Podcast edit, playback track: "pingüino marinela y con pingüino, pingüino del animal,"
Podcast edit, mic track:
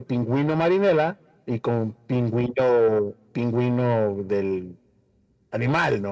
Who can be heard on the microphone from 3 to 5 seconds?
echo only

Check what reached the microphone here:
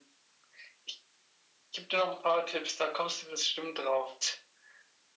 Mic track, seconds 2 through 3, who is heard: echo only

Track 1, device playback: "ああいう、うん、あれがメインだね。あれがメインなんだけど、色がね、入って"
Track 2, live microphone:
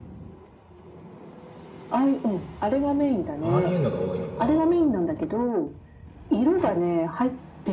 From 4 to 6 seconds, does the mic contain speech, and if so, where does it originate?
both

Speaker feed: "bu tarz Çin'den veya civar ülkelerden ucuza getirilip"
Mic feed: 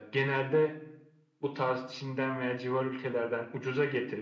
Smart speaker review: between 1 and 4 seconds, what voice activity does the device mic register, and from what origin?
echo only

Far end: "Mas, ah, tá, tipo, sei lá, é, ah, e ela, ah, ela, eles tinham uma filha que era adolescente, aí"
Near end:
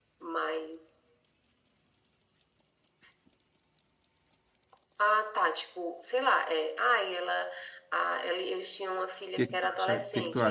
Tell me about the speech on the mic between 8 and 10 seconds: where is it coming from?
both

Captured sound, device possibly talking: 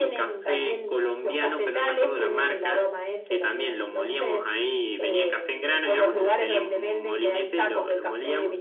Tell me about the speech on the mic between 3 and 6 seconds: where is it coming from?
echo only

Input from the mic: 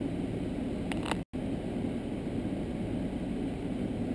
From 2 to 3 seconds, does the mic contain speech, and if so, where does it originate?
neither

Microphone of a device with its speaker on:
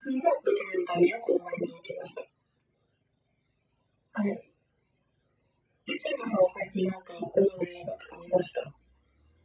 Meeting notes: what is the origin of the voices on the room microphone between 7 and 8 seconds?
echo only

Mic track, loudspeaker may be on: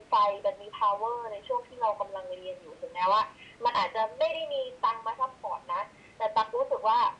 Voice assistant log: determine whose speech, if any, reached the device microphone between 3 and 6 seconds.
echo only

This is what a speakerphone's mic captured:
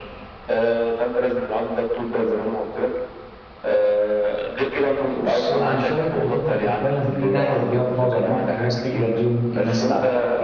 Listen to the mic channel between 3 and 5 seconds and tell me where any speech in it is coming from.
echo only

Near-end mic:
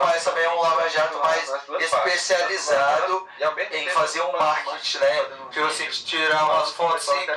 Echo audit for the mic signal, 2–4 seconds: echo only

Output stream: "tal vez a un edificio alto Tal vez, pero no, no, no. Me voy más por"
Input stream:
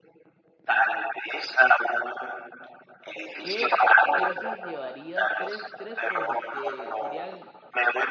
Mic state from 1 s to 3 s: echo only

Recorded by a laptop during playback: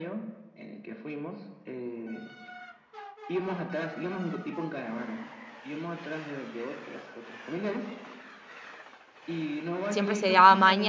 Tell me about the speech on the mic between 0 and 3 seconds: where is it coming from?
echo only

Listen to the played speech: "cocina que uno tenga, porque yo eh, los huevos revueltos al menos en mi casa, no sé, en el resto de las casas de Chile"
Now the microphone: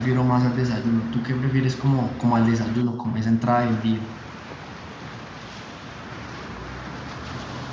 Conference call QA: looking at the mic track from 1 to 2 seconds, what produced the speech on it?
user only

